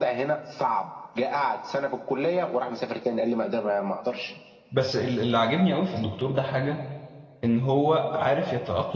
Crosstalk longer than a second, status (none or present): none